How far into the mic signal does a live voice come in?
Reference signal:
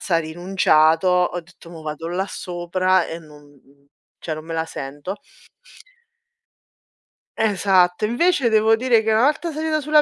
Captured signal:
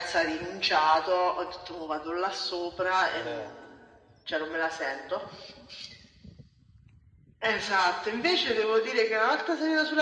3.1 s

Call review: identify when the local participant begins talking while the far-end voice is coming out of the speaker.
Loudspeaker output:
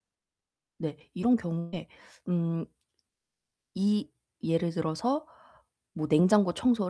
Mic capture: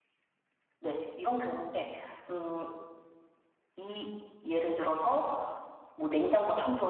none

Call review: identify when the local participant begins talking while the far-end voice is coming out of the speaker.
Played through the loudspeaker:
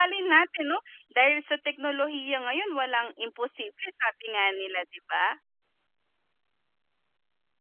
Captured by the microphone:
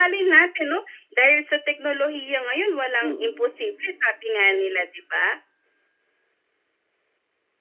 3.0 s

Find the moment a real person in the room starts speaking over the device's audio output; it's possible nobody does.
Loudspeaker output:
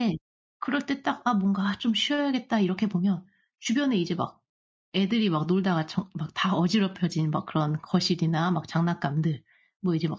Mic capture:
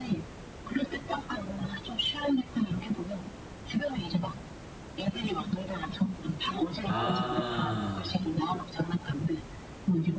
6.8 s

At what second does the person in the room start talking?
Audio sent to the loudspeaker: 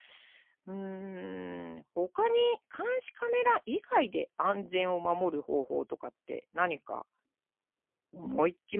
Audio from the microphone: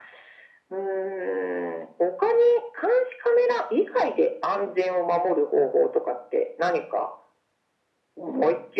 none

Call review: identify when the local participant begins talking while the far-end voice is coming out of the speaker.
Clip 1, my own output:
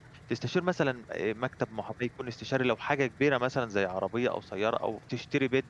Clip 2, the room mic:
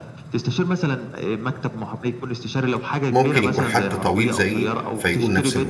3.1 s

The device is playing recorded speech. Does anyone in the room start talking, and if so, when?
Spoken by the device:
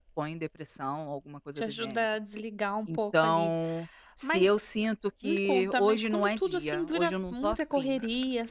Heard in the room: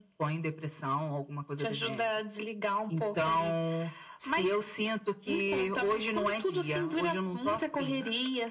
none

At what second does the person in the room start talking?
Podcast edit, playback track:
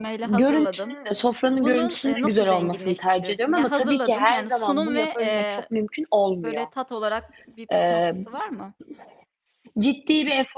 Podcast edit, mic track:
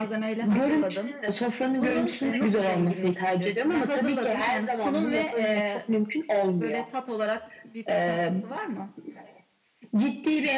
none

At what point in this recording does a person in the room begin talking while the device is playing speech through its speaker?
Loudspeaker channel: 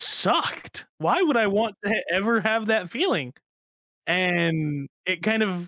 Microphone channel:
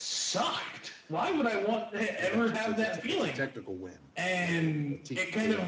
2.2 s

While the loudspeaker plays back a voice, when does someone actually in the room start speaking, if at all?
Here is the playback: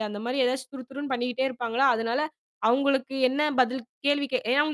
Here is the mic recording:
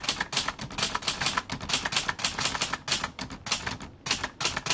none

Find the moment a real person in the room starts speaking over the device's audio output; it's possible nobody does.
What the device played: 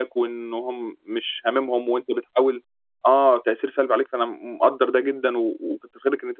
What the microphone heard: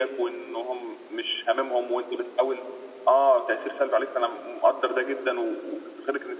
none

